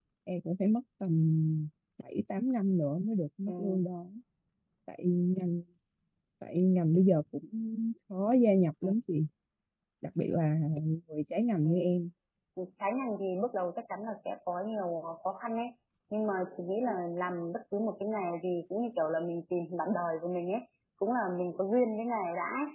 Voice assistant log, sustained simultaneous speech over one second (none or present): none